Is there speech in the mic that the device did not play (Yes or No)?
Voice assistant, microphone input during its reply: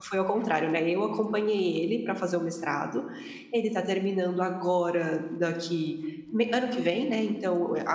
Yes